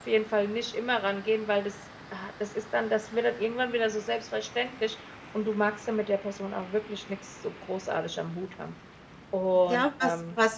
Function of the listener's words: taking over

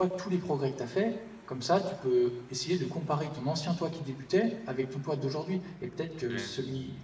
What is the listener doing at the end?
listening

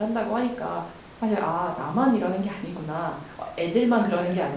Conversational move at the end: listening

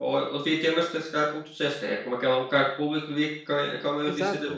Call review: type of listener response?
taking over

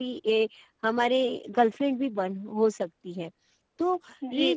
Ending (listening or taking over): taking over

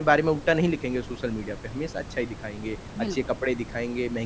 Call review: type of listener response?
listening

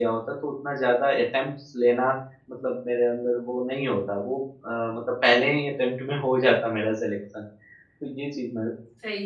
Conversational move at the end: taking over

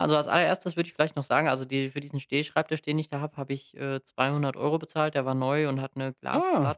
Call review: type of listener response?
listening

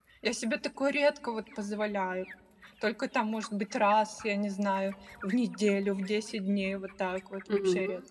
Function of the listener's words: taking over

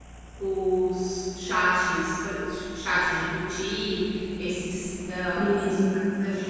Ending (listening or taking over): listening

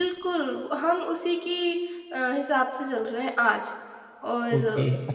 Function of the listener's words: taking over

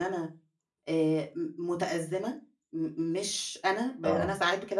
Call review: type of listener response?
listening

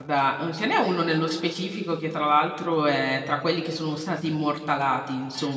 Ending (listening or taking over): listening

